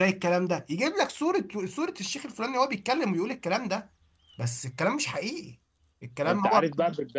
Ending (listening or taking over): taking over